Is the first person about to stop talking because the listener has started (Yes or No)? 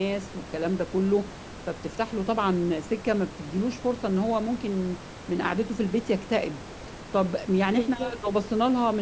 No